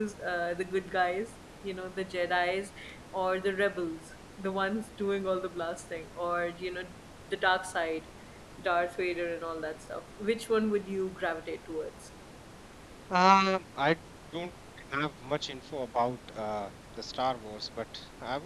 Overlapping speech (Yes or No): No